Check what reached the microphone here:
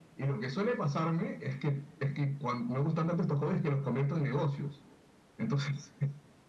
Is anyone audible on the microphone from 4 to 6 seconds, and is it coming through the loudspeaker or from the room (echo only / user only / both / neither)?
echo only